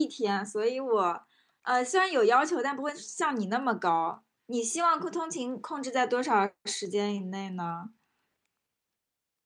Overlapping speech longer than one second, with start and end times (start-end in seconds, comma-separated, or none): none